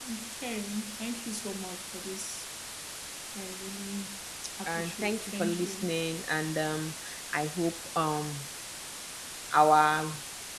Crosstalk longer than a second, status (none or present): present